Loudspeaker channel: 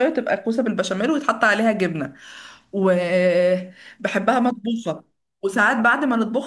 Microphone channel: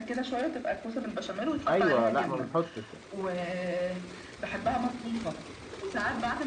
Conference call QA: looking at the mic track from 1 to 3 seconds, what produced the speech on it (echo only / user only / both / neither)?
both